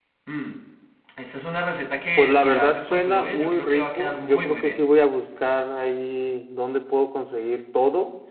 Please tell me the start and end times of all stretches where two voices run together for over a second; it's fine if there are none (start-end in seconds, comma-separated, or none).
2.2-4.8